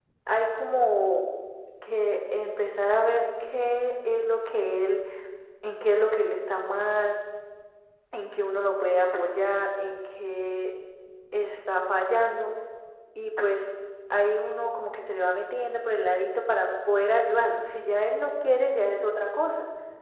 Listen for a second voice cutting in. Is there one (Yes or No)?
No